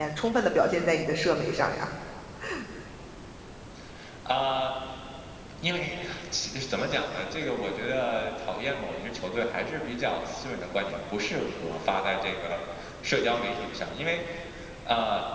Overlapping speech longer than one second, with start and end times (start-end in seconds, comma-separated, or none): none